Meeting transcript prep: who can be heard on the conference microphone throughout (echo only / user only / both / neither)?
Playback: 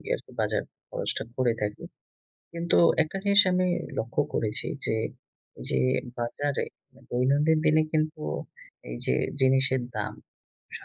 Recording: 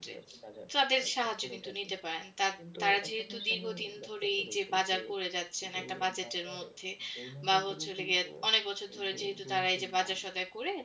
both